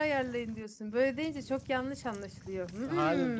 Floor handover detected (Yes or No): Yes